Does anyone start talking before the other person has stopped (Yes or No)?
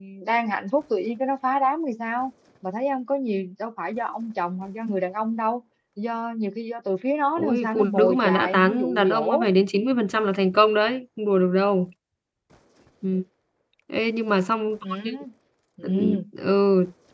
Yes